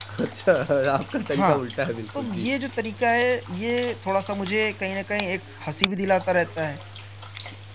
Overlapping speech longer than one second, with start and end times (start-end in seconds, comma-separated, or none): none